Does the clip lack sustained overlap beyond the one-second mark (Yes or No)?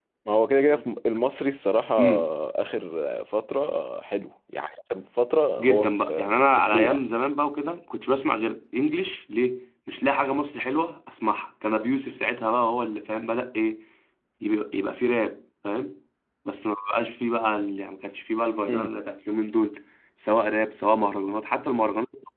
No